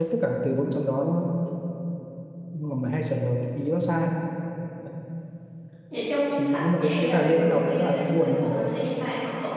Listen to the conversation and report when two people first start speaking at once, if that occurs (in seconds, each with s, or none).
6.3 s